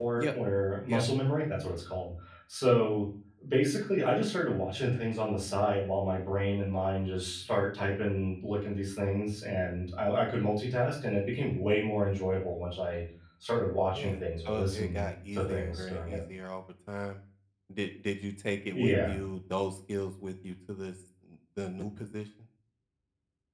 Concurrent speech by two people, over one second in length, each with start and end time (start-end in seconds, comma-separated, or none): 13.9-16.2